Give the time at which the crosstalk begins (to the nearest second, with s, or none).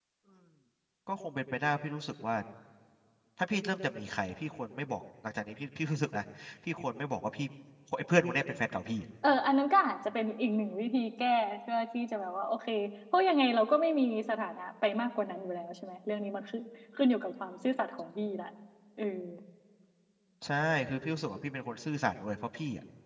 none